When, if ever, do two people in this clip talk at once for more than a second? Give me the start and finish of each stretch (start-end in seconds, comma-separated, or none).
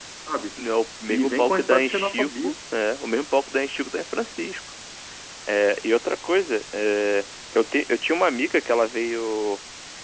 1.1-2.5